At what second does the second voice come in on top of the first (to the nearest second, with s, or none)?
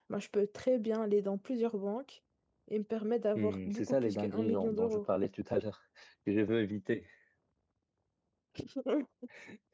3 s